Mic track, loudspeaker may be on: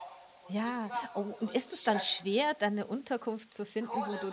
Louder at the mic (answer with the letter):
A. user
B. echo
A